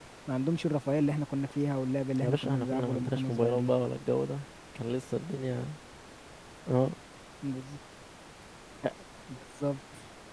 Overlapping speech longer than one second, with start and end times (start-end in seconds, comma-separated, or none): 2.2-3.7